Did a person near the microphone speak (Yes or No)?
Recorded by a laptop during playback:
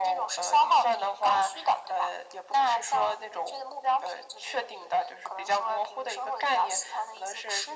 No